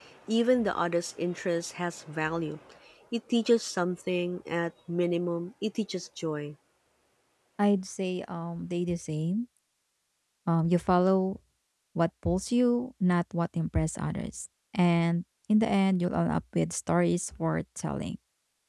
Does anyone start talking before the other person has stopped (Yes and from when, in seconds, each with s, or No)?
No